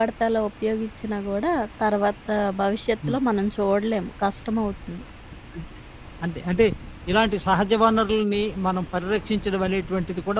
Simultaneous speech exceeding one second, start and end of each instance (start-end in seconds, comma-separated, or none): none